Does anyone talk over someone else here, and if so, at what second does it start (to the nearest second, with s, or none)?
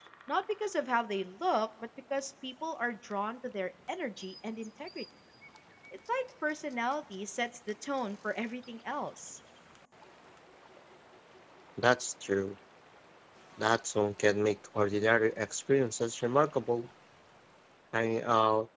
none